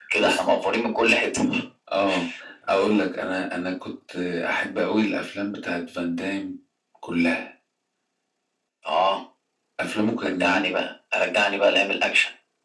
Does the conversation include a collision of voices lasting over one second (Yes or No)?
No